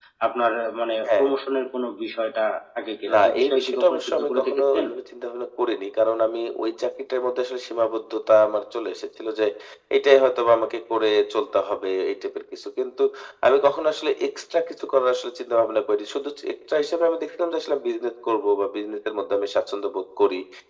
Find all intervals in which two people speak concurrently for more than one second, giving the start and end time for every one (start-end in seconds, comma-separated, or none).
3.1-4.8